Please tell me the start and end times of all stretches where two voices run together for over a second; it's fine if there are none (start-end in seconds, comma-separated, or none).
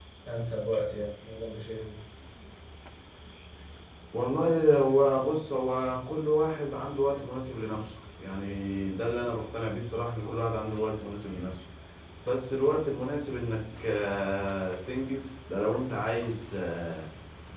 none